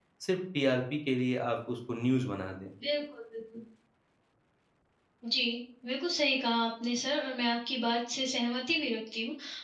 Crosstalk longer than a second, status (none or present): none